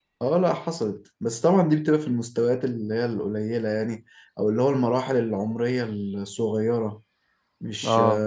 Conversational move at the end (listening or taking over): taking over